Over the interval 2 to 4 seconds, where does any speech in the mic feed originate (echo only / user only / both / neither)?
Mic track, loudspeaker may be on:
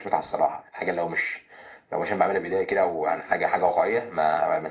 echo only